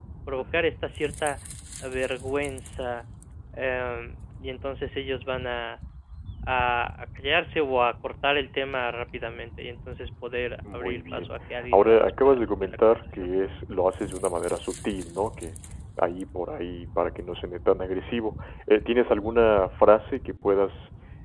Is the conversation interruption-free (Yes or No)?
No